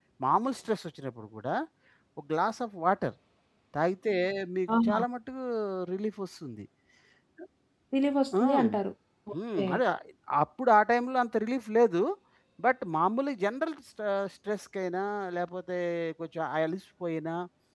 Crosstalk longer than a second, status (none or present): none